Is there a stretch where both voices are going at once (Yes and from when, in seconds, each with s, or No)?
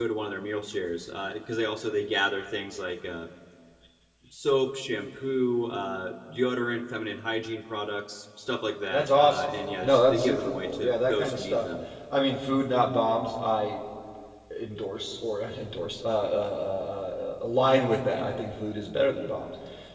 Yes, from 8.9 s